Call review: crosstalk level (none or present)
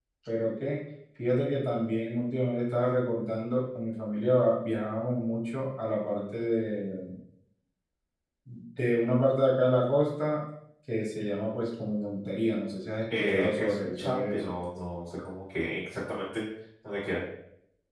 present